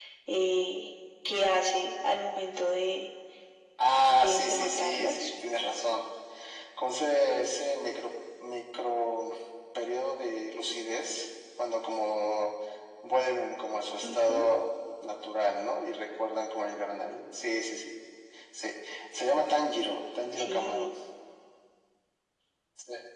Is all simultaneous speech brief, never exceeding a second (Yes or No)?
No